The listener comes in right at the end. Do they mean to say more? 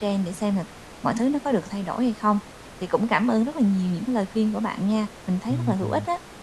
Yes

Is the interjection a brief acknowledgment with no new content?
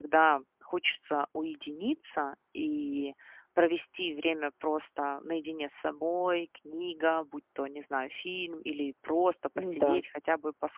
Yes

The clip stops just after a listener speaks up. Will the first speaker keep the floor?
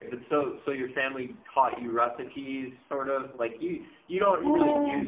Yes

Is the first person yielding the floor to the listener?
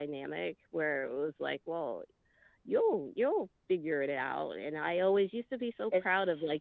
No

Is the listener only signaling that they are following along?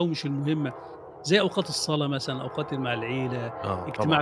Yes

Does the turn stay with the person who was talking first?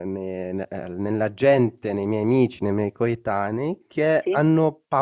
Yes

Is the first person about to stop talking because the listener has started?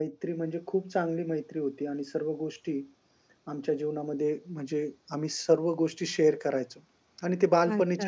Yes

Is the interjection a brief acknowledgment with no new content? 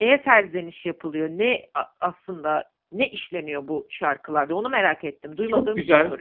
No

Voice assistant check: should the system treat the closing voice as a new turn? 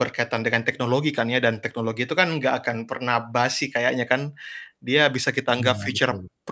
No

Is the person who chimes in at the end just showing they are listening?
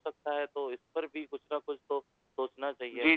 No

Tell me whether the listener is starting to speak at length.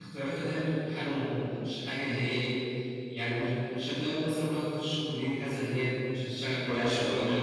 Yes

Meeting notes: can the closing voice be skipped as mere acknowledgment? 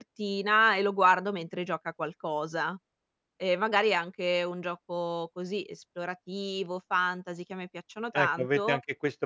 No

